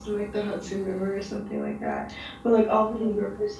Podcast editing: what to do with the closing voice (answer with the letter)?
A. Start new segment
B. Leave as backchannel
B